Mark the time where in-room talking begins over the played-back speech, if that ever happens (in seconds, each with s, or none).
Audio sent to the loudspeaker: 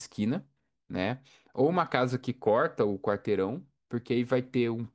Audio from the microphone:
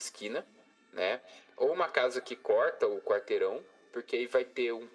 none